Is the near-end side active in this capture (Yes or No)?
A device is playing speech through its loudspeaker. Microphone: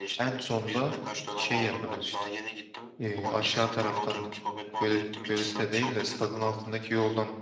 Yes